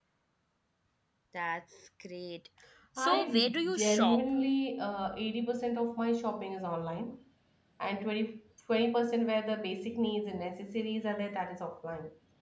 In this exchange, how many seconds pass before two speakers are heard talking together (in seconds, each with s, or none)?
3.0 s